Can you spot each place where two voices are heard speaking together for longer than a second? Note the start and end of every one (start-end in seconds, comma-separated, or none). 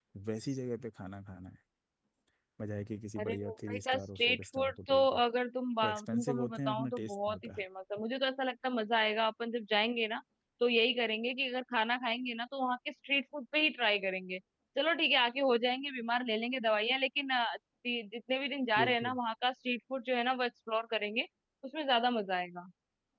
3.2-5.2, 5.8-7.6